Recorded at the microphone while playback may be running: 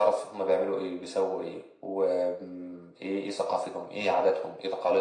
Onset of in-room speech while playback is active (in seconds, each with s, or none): none